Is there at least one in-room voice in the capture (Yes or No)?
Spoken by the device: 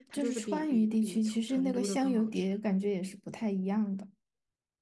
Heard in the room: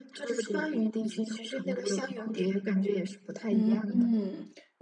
Yes